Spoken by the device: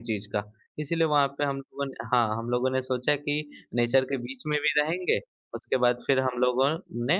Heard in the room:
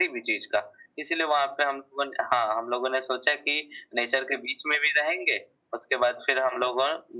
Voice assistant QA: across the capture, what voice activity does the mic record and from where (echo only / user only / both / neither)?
echo only